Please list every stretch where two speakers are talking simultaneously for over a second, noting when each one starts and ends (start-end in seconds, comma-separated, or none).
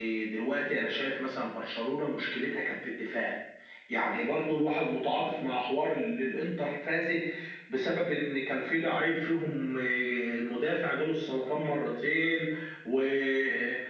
none